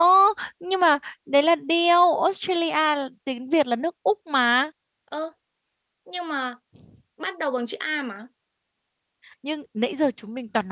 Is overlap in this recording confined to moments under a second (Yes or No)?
Yes